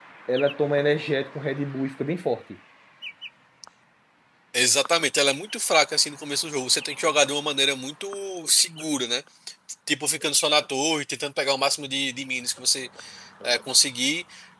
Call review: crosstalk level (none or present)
none